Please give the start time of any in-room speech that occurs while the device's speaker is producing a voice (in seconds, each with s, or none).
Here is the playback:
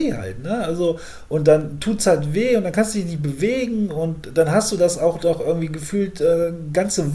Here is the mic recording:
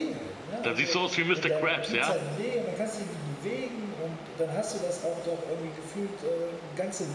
0.6 s